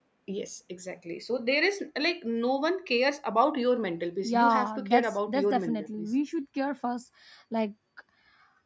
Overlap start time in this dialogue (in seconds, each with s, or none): 4.2 s